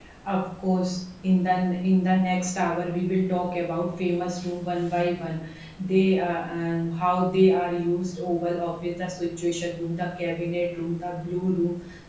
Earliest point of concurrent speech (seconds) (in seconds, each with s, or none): none